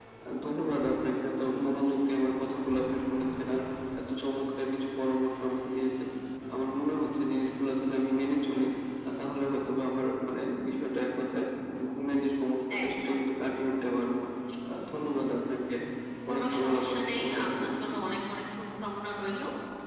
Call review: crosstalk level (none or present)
present